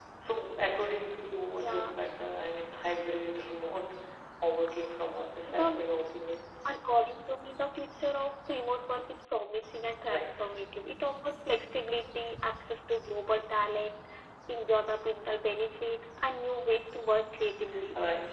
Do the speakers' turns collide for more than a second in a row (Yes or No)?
No